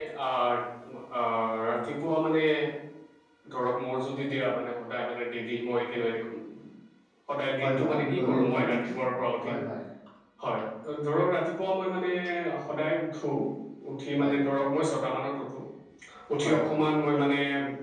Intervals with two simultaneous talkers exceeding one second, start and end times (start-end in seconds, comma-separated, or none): 7.6-9.5